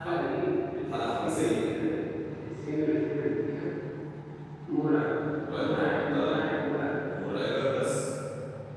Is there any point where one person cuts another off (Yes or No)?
Yes